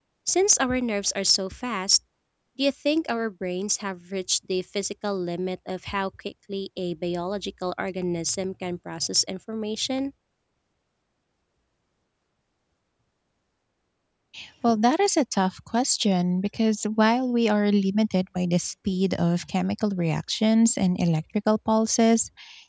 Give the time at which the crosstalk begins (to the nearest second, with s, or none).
none